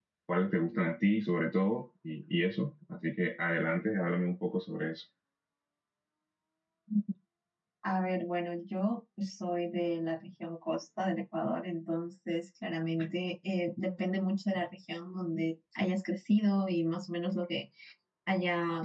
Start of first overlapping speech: none

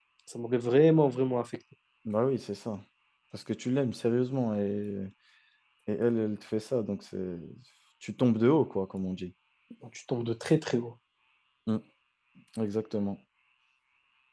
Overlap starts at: none

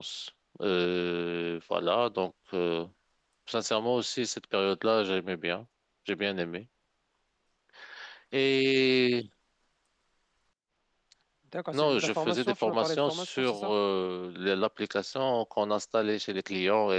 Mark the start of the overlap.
11.7 s

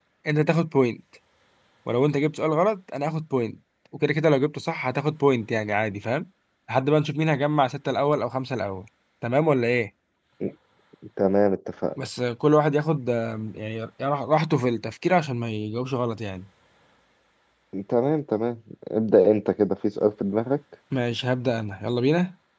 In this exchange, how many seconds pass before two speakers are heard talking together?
none

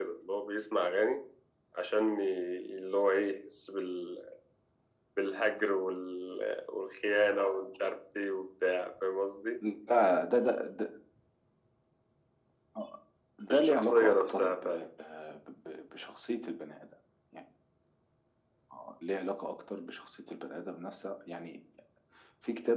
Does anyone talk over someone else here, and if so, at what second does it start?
13.5 s

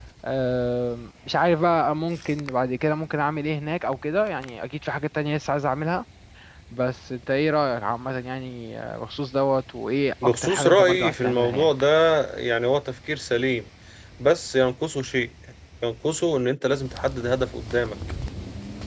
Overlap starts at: 10.2 s

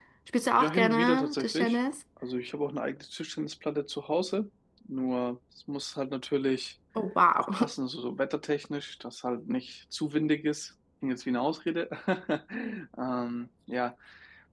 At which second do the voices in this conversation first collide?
0.6 s

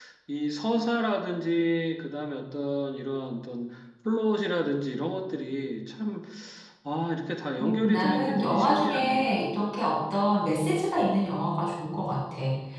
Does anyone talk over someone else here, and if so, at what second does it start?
7.6 s

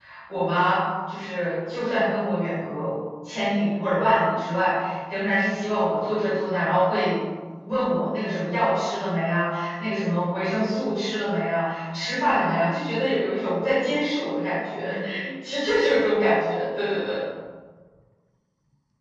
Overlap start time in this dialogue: none

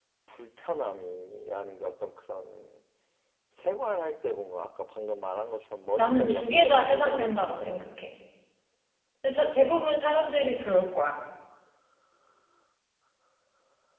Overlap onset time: 6.0 s

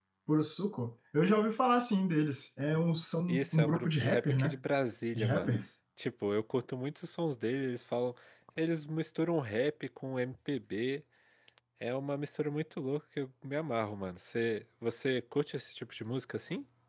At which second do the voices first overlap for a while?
3.3 s

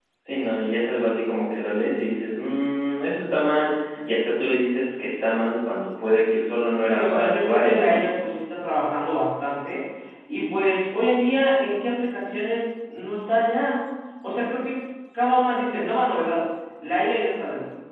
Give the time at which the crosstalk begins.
6.8 s

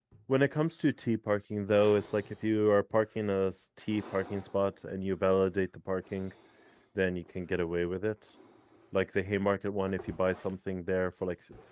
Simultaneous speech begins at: none

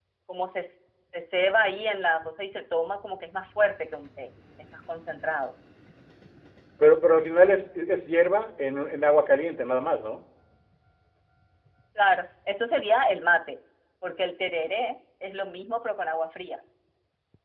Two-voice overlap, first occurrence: none

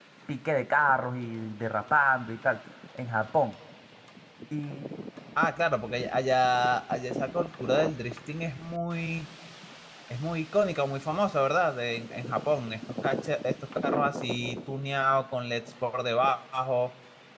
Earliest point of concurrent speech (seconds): none

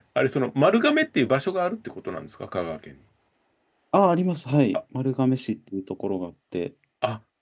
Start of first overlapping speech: none

